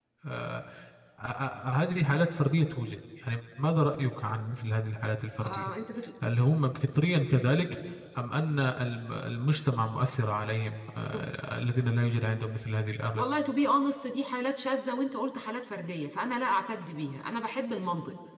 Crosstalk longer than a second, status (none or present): none